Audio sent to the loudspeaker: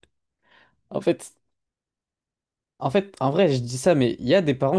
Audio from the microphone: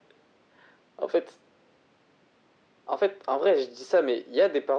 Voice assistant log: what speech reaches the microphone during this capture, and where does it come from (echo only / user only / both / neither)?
echo only